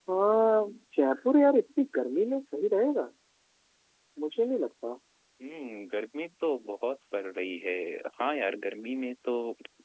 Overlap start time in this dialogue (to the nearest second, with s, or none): none